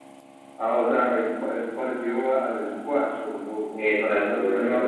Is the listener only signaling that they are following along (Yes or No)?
No